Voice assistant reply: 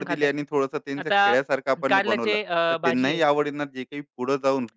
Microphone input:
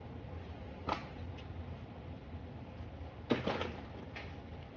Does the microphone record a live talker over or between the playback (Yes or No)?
No